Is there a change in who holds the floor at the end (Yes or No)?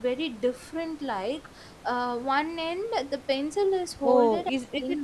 Yes